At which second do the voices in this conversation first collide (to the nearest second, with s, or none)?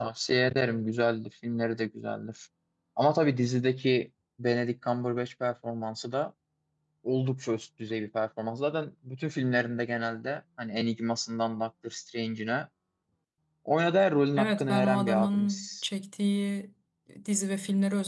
14 s